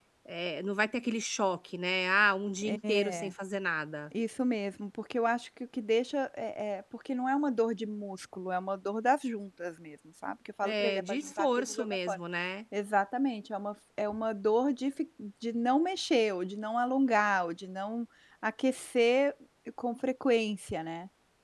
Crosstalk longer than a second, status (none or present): present